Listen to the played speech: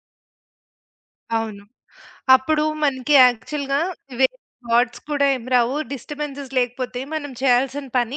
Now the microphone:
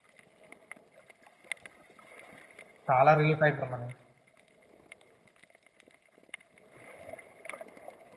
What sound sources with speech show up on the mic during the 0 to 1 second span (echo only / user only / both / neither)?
neither